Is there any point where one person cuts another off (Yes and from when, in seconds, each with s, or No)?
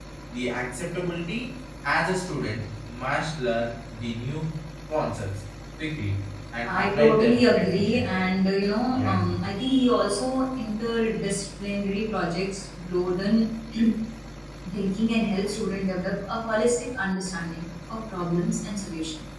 Yes, from 6.6 s